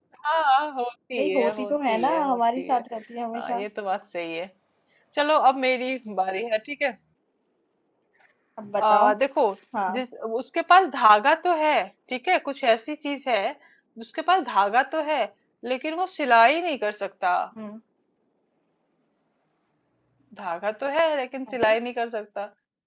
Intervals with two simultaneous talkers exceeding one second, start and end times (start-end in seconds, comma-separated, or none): 1.2-2.8